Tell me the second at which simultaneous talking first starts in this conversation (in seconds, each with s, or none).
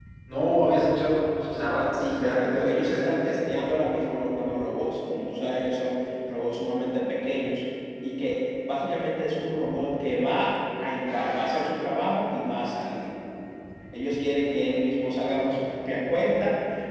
1.9 s